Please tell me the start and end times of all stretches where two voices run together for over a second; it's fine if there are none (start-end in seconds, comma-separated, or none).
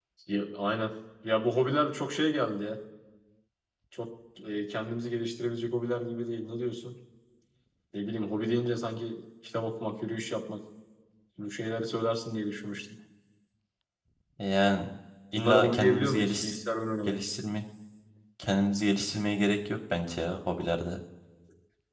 15.3-16.6